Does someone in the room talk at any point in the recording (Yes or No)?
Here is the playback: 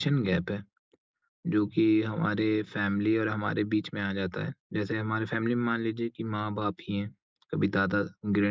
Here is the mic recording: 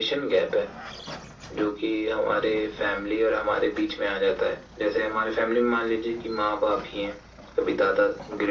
No